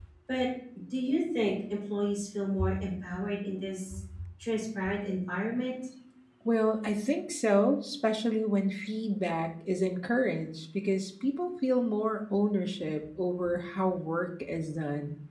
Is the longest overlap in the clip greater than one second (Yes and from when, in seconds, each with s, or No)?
No